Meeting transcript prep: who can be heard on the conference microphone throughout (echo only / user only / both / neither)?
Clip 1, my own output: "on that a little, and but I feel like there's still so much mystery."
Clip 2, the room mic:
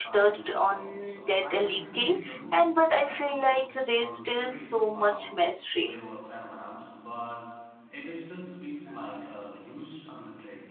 both